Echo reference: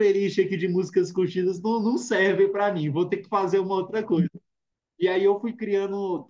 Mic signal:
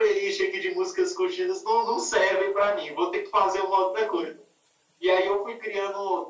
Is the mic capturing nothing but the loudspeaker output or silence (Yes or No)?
Yes